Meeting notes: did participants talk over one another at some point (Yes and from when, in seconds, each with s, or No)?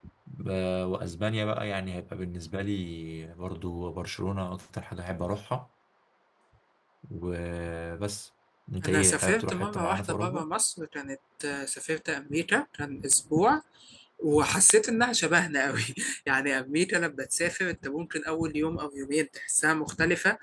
Yes, from 8.8 s